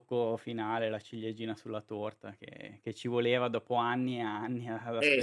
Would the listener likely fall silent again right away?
No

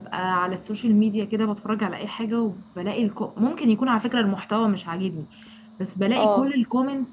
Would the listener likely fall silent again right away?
Yes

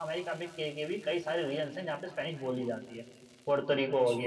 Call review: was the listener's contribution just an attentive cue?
Yes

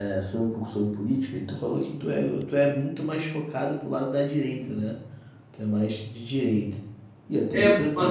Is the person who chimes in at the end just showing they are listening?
No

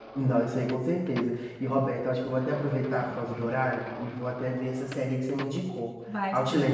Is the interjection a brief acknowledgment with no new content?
No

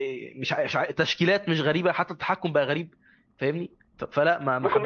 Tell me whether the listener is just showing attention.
No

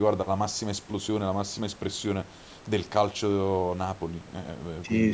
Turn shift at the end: Yes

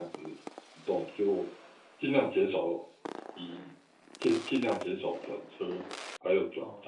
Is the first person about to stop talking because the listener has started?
Yes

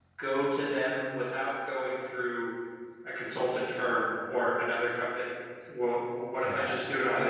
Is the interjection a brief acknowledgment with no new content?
No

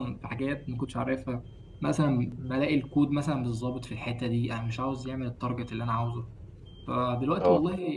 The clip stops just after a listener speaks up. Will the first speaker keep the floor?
Yes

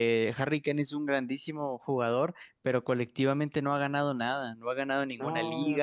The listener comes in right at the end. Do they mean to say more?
No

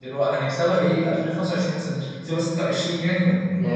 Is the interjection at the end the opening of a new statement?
Yes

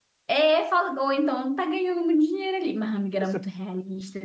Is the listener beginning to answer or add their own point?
No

